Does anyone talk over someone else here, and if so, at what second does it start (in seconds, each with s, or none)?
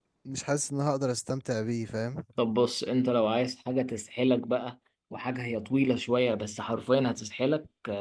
none